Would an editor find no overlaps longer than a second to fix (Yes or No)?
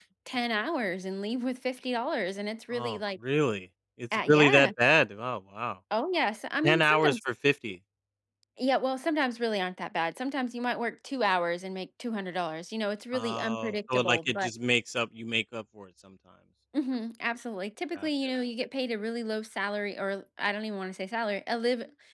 No